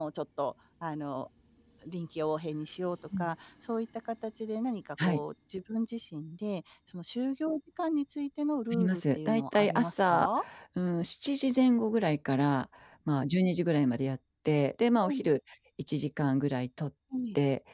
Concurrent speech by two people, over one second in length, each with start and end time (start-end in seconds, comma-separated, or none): 8.7-10.3